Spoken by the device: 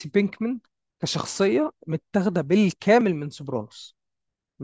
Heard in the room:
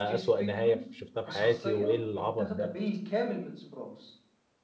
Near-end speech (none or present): present